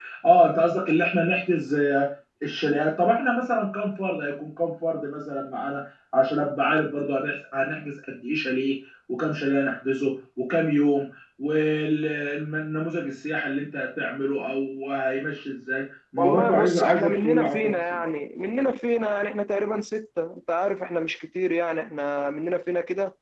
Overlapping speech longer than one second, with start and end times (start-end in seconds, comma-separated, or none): 16.2-18.0